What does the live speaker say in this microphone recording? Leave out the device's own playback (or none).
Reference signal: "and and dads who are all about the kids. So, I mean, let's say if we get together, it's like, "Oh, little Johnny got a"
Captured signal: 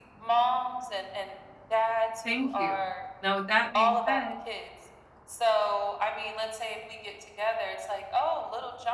thank you. Now with that being said